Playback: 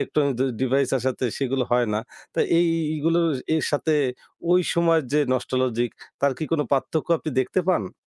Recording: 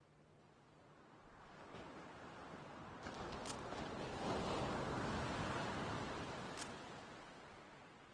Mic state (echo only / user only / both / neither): neither